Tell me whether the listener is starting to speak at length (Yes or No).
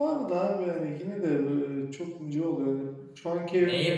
Yes